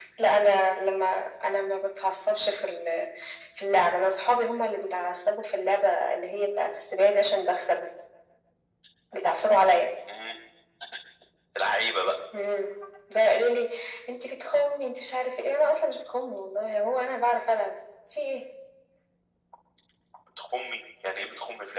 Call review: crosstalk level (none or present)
none